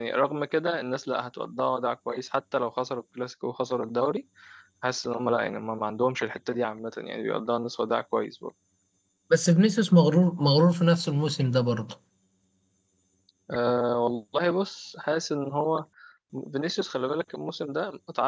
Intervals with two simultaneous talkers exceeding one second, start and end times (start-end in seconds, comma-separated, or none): none